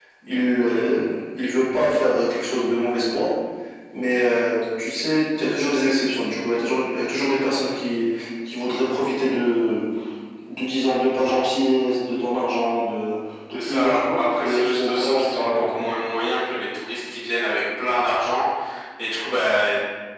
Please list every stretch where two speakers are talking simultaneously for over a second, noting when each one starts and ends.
13.5-15.8

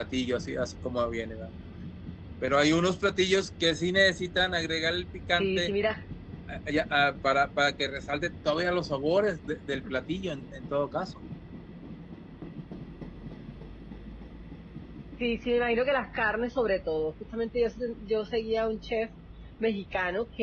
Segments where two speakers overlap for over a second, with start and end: none

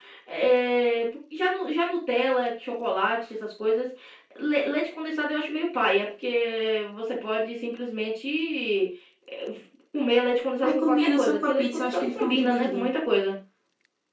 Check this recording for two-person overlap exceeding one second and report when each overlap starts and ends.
10.6-12.9

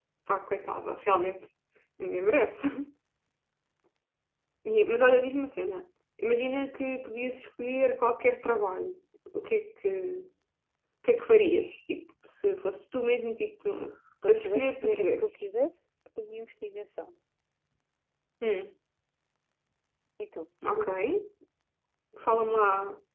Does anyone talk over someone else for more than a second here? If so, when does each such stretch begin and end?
14.2-15.5

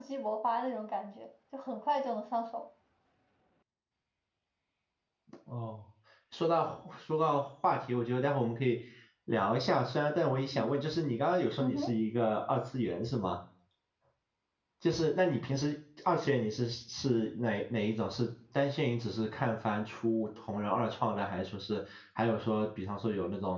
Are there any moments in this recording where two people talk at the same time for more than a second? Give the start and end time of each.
none

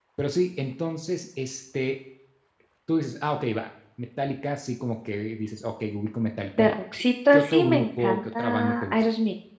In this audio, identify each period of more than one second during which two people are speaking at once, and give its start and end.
7.3-9.0

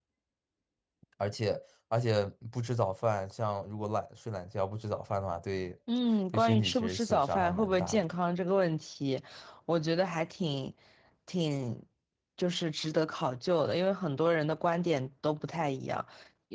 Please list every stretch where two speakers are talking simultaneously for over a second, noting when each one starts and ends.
6.3-8.0

